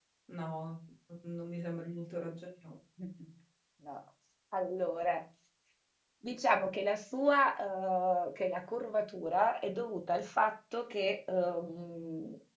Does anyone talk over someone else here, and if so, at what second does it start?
none

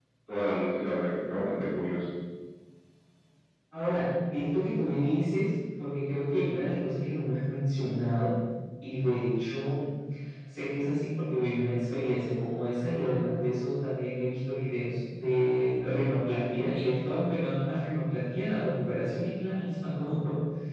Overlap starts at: none

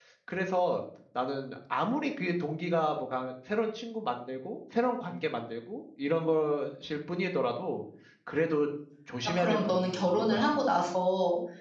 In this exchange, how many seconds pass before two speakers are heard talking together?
9.4 s

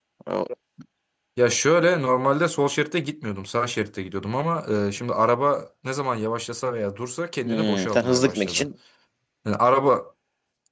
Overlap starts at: 7.5 s

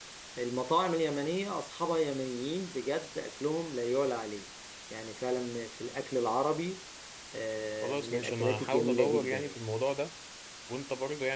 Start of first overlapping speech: 7.8 s

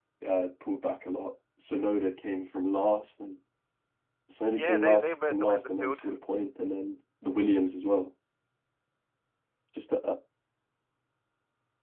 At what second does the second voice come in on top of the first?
4.5 s

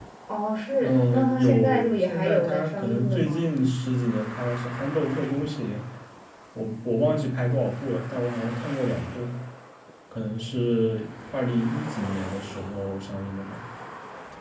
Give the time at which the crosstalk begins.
0.8 s

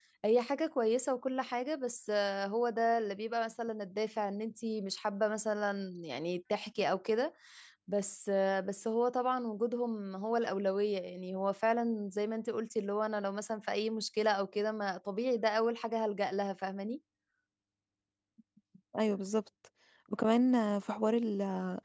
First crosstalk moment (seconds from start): none

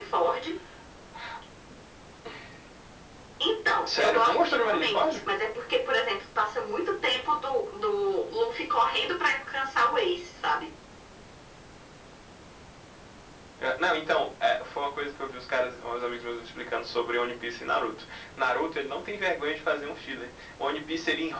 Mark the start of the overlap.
3.9 s

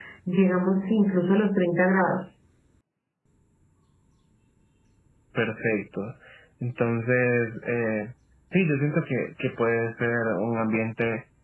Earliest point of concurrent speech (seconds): none

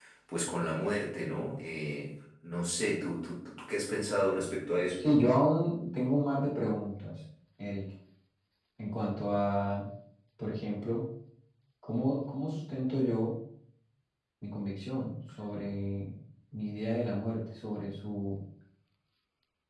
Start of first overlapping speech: none

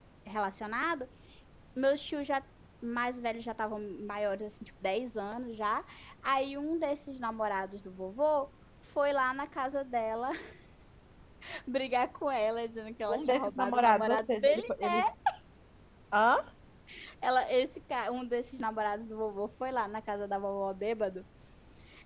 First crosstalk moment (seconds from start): 13.1 s

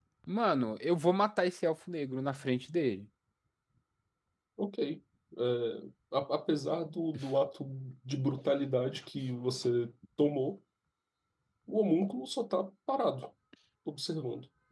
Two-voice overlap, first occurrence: none

